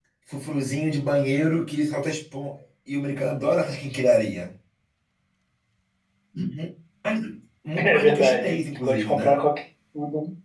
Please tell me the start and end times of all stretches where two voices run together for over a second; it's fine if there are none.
7.8-9.3

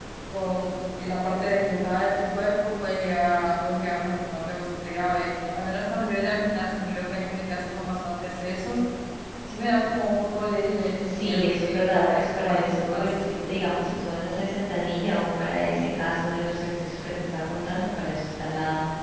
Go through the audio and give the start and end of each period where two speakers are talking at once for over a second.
11.0-13.3

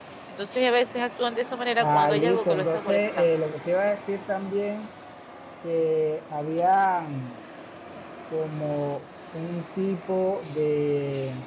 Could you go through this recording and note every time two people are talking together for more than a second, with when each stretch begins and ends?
1.8-3.2

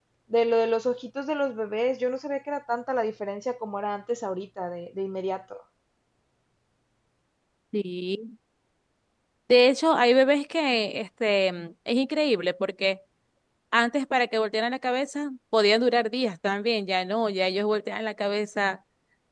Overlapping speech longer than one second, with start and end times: none

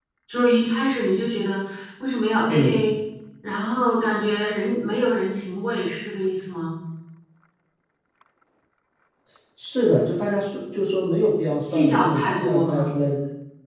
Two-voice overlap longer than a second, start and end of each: 11.7-12.9

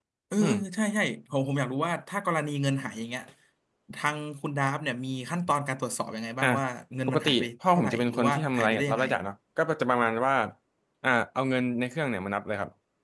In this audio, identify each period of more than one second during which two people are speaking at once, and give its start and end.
7.1-9.0

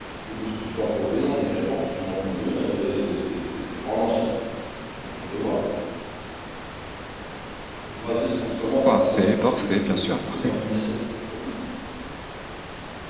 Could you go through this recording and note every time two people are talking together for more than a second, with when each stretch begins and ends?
8.9-10.5

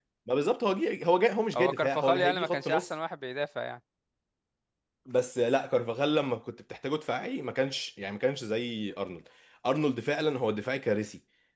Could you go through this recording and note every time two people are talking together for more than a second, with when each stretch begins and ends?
1.5-2.9

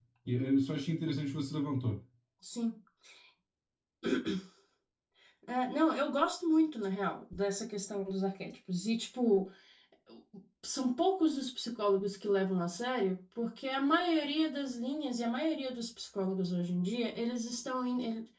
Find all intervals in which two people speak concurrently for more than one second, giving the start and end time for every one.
none

